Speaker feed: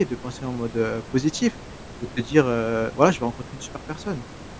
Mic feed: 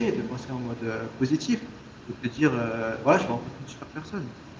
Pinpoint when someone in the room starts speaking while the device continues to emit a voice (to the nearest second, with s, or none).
none